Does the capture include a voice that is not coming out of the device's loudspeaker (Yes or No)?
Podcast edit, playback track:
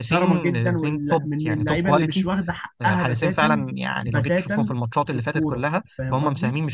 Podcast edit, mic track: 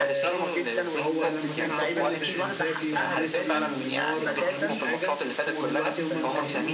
Yes